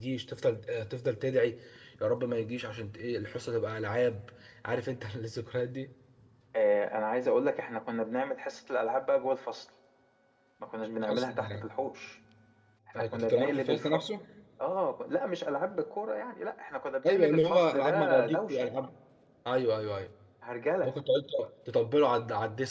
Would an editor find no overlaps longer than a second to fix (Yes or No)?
No